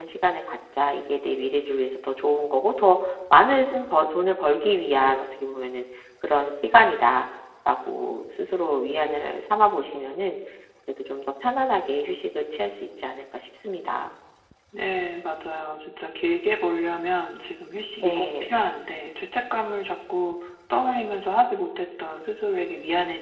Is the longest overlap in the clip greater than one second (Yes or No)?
No